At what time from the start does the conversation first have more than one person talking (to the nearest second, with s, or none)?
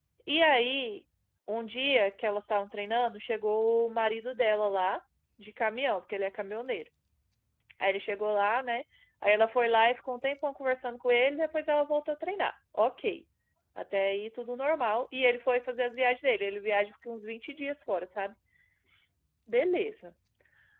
none